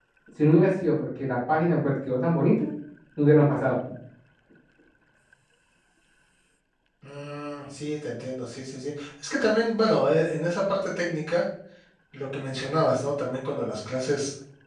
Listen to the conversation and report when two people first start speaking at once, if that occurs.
none

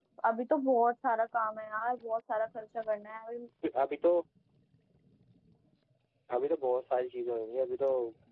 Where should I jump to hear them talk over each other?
none

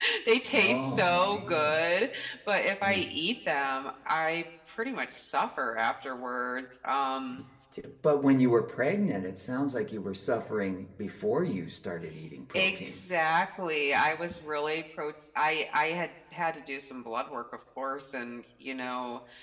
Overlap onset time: 1 s

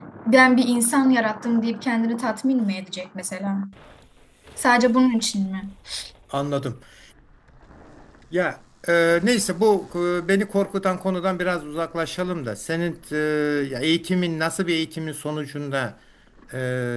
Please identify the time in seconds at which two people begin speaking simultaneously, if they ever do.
none

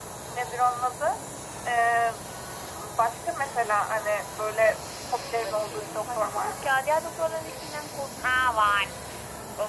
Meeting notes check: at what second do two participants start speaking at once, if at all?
5 s

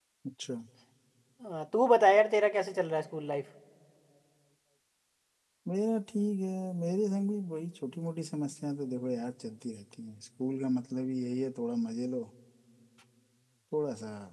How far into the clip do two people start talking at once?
none

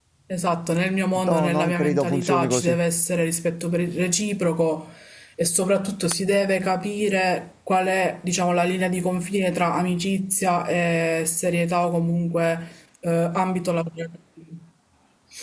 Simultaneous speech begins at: 1 s

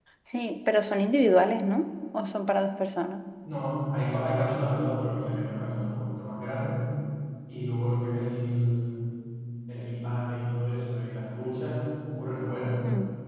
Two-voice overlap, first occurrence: none

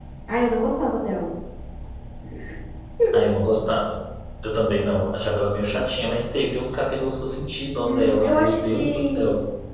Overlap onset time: 8 s

